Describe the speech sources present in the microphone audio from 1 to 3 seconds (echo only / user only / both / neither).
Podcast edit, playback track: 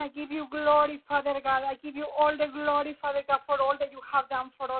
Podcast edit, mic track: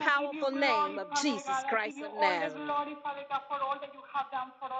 both